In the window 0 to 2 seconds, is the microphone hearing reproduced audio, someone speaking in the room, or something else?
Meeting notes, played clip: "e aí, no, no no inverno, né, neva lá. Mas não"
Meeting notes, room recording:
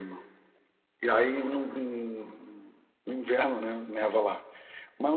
echo only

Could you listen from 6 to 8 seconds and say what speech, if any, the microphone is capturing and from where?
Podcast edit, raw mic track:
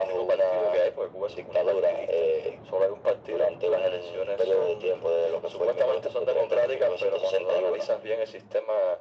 echo only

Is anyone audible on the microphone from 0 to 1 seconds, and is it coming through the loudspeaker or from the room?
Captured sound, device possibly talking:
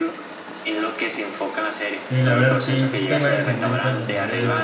echo only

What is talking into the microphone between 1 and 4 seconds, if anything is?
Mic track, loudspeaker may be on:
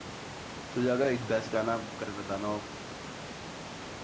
user only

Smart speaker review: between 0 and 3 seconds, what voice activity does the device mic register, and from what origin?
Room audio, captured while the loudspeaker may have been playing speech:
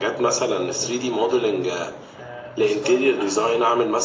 both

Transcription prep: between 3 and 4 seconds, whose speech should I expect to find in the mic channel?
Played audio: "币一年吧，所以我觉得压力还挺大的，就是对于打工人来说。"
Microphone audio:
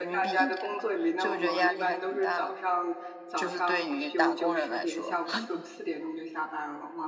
both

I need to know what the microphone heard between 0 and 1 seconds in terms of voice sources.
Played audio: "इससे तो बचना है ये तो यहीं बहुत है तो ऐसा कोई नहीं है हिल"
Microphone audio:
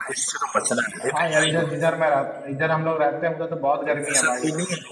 echo only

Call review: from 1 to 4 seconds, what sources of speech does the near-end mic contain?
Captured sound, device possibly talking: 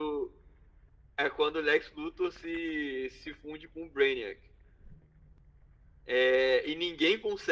echo only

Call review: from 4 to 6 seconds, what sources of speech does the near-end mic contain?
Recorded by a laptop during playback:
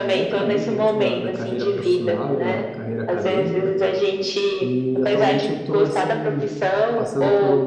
both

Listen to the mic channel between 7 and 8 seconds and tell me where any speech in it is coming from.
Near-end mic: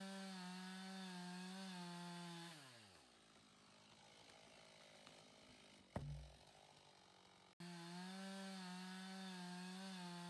neither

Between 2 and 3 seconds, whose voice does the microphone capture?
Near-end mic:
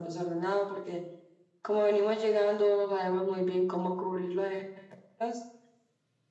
echo only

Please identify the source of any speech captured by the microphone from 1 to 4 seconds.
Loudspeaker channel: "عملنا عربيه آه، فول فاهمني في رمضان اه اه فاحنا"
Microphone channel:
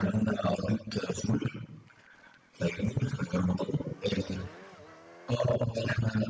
echo only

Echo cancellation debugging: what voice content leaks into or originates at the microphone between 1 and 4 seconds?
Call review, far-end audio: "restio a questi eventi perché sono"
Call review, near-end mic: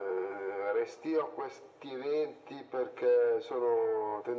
echo only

